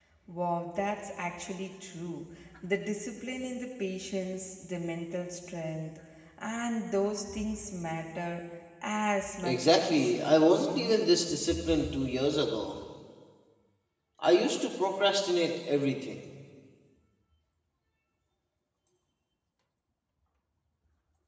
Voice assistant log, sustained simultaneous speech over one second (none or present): present